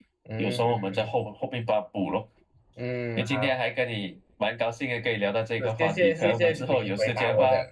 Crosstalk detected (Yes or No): Yes